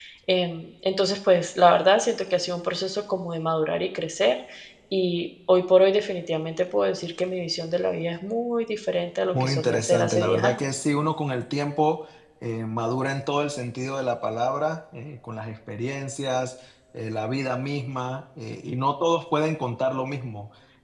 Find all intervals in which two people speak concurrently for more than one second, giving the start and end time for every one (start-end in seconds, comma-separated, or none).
9.3-10.6